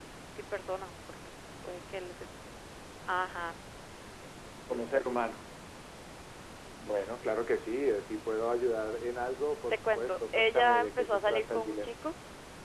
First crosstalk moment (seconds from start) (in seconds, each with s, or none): 9.9 s